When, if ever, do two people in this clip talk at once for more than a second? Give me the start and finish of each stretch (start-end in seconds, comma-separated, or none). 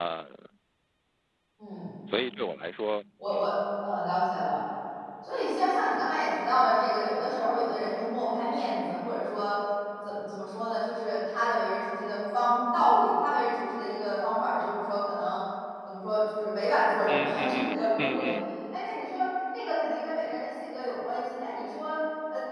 17.1-18.3